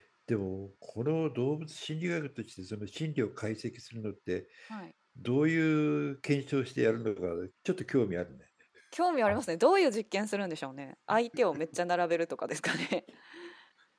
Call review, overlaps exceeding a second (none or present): none